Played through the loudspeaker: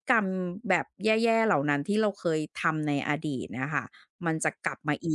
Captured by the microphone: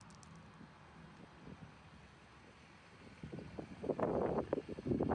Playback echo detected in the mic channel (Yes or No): No